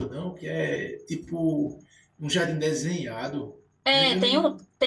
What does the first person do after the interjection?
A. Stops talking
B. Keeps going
A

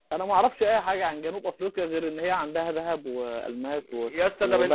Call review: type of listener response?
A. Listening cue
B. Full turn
B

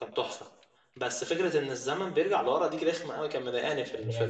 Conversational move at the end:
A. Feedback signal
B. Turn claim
B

